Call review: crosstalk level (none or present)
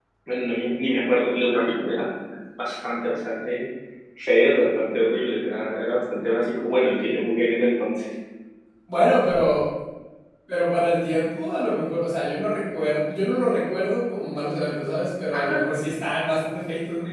none